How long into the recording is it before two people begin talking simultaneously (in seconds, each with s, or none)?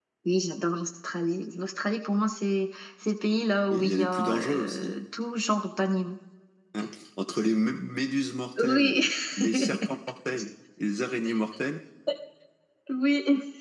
3.7 s